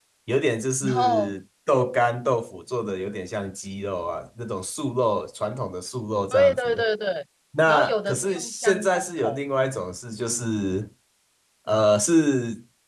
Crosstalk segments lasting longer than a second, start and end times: 7.7-9.4

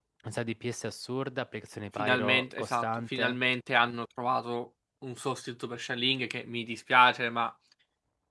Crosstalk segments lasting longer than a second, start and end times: 1.9-3.4

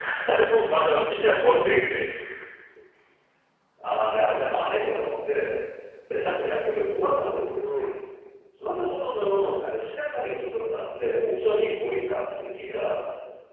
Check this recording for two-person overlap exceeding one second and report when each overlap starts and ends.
none

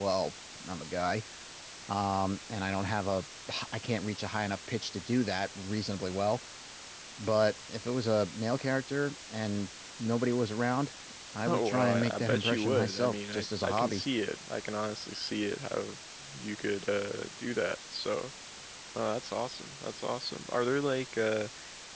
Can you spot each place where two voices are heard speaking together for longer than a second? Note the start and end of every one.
11.5-14.0

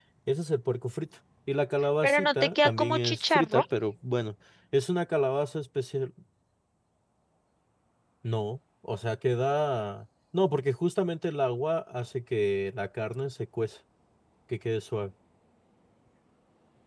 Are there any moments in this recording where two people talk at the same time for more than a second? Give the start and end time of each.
2.0-3.6

